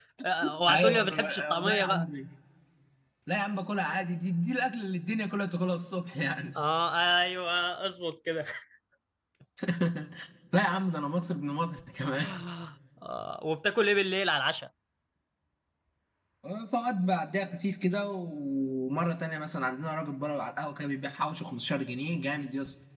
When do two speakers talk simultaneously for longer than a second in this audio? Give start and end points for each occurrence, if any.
0.7-2.0

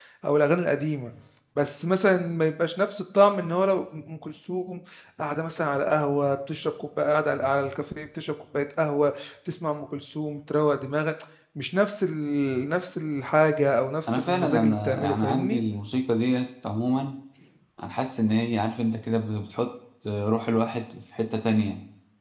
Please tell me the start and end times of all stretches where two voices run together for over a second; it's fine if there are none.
14.2-15.6

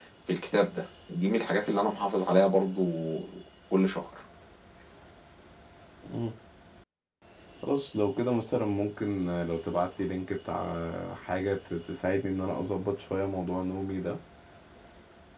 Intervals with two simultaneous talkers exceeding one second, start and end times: none

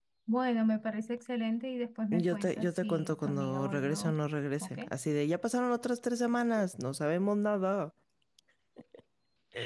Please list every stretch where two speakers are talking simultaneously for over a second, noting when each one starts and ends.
2.1-4.2

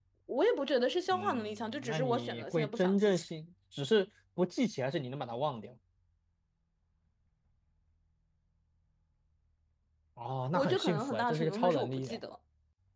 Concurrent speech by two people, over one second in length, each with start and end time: 1.1-3.2, 10.5-12.2

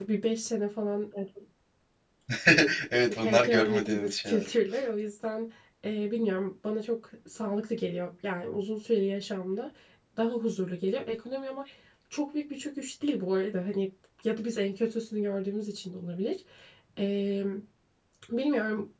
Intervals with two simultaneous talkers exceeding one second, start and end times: 3.1-4.5

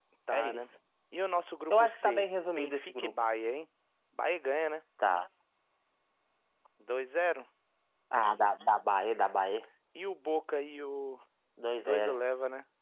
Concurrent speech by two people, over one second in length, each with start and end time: 1.7-3.1

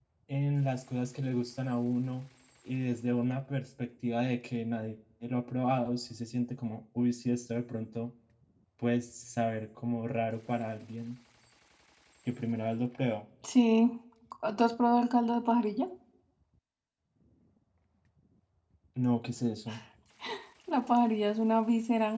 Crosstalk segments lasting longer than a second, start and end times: none

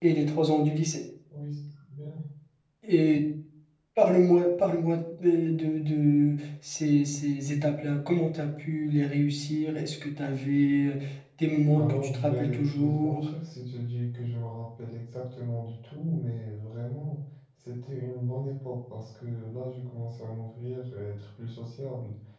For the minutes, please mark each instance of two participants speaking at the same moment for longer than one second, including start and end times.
11.8-13.2

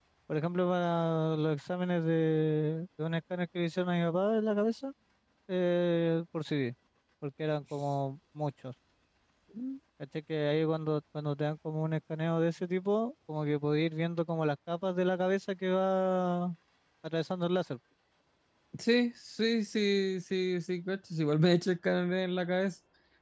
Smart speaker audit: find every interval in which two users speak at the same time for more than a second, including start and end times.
none

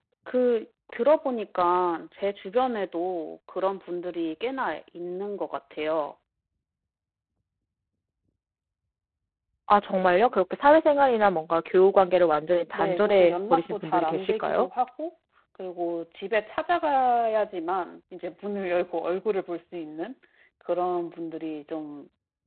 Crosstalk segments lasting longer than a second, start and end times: 12.7-14.7

